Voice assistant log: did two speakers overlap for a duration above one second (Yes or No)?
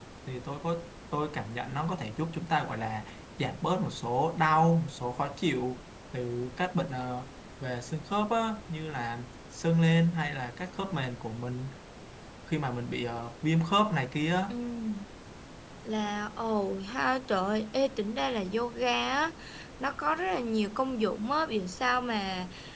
No